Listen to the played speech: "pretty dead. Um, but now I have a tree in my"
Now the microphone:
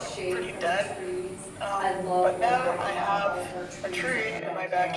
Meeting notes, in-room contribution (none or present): present